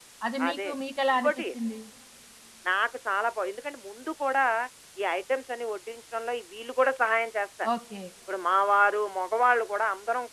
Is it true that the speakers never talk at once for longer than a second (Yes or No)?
Yes